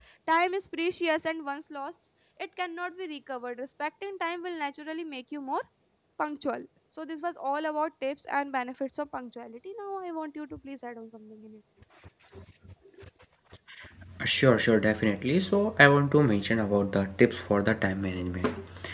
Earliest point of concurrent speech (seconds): none

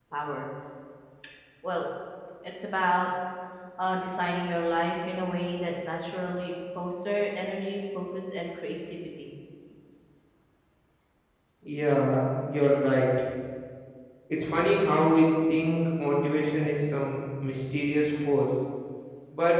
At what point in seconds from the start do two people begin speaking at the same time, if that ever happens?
none

